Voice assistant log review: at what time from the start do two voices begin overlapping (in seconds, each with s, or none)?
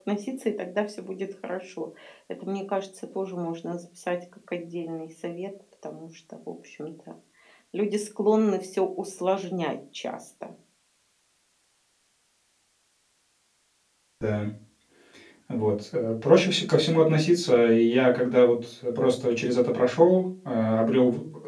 none